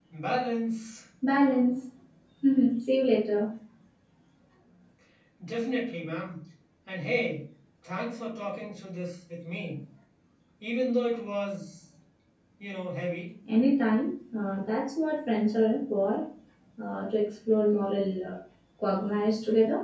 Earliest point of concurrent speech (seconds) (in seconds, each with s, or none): none